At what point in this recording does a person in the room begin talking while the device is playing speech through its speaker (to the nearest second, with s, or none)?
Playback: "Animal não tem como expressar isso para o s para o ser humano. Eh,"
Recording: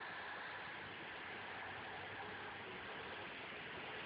none